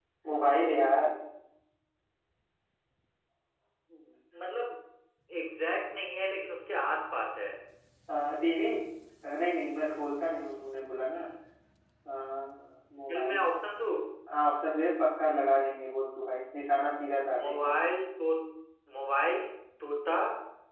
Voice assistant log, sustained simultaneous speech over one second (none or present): none